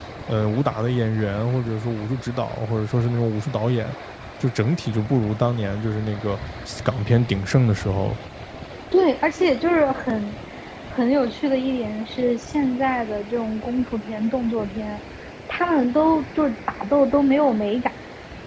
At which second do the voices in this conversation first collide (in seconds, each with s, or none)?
none